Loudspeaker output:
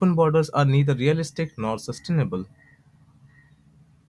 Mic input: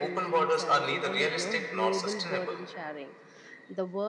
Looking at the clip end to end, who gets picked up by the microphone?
both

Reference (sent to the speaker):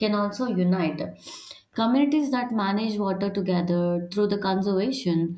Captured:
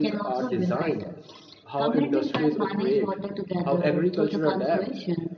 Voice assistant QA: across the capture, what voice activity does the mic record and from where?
both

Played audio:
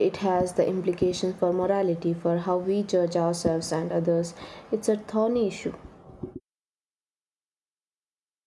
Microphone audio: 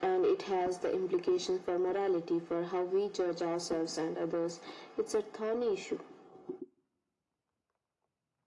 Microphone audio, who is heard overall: echo only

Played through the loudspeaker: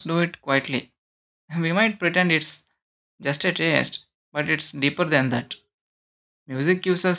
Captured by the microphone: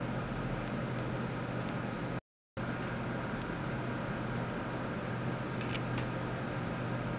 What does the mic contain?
neither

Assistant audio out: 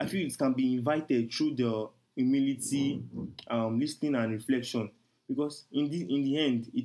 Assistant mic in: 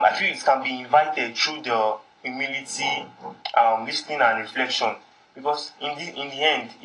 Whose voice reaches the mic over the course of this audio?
echo only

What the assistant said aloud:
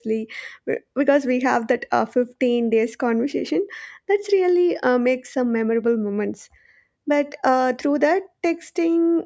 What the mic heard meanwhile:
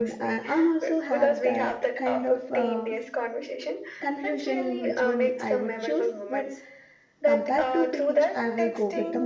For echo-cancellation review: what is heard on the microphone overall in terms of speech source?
both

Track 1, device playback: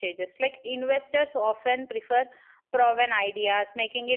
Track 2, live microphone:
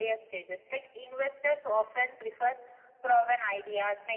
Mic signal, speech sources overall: echo only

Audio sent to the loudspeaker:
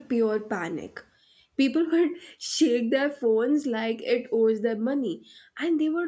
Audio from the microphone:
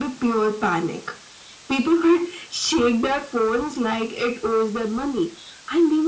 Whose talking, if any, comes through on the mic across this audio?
echo only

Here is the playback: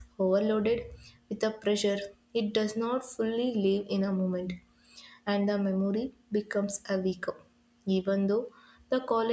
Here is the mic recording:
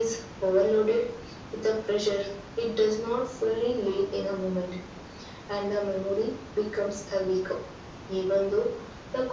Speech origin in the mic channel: echo only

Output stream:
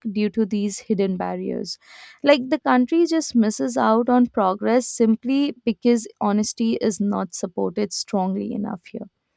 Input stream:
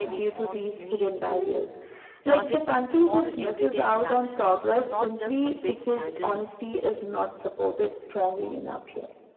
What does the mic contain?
both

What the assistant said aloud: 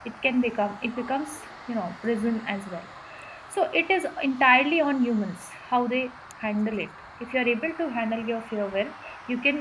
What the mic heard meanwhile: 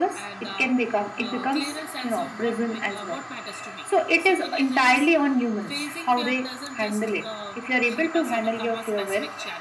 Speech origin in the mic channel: both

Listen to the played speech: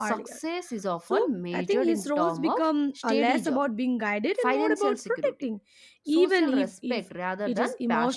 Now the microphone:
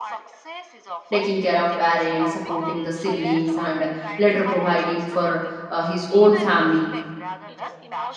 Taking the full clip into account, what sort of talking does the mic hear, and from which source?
both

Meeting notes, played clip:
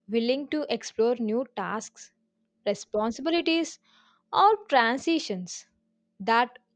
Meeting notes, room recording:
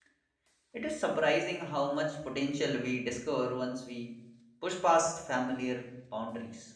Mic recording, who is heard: user only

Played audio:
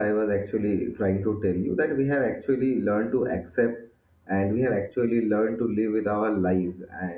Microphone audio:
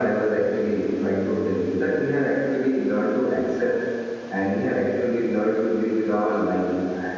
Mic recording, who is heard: echo only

